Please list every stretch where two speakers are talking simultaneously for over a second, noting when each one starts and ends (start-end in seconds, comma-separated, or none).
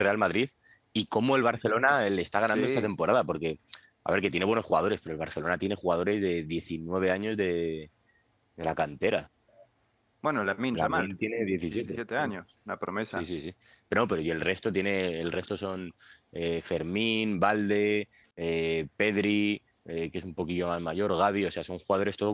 none